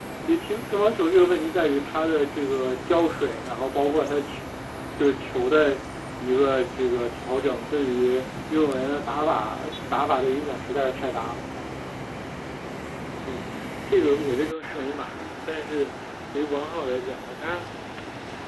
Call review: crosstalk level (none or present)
none